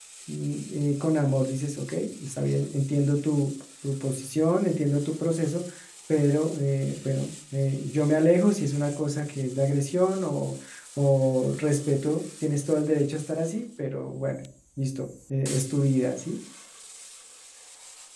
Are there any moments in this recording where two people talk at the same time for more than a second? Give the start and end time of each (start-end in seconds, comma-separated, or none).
none